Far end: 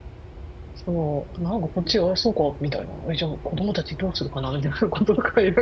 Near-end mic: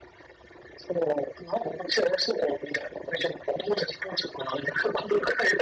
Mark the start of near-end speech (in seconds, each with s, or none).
none